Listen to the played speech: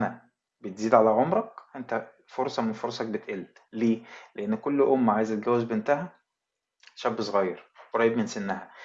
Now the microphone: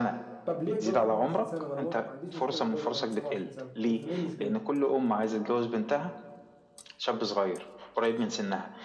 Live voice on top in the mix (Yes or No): No